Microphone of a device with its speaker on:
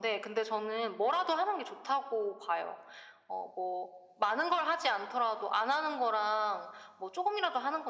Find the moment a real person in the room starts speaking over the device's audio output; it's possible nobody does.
none

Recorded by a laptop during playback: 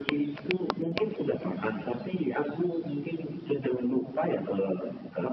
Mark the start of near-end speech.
none

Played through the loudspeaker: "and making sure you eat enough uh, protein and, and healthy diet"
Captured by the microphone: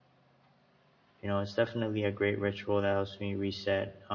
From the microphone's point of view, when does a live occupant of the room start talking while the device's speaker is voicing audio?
1 s

